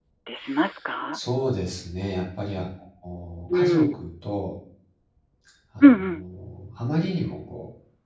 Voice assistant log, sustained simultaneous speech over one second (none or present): none